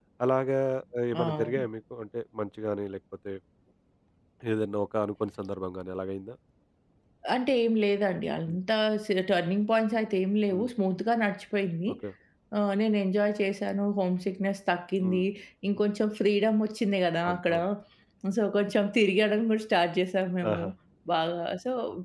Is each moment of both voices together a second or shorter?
Yes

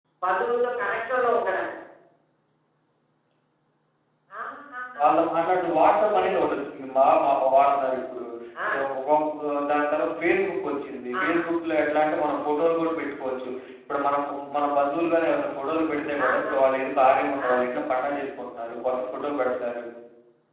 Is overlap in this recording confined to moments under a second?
Yes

